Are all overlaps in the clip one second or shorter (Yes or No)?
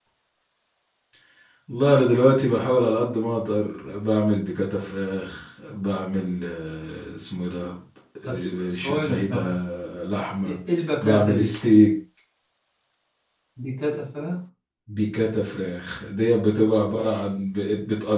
No